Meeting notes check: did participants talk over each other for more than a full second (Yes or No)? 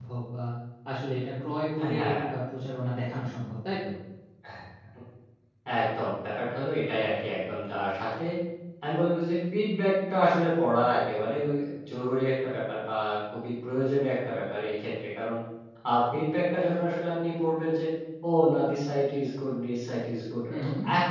No